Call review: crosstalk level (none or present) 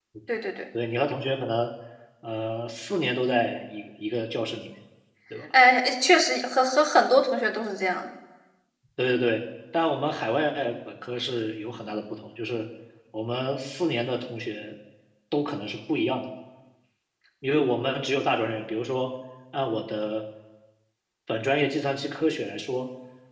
none